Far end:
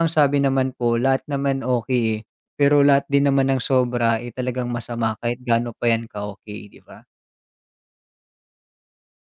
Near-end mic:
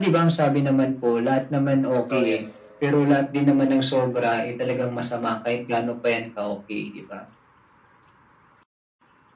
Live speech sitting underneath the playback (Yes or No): Yes